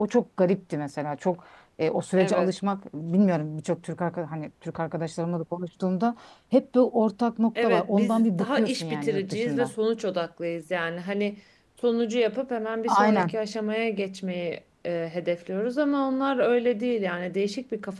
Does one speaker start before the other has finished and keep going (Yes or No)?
Yes